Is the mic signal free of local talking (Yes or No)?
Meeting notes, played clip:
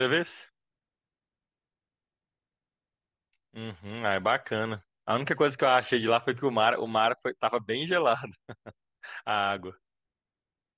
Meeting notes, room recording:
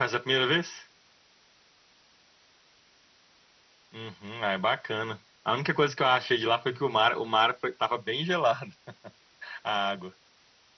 Yes